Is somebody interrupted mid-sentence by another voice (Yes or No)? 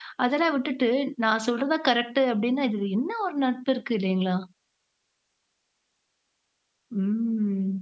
No